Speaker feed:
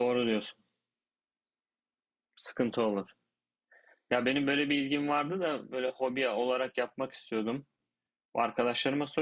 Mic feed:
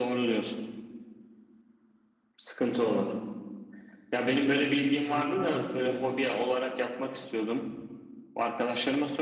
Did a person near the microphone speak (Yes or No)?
Yes